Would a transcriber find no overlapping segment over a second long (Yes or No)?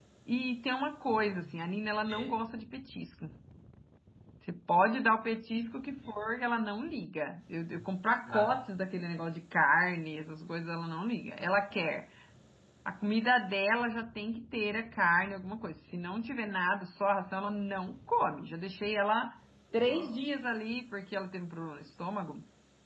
Yes